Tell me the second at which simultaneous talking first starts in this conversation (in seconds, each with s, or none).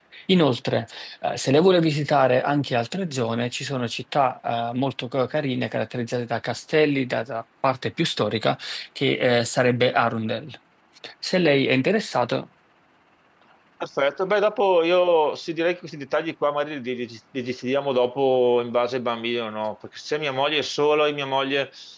none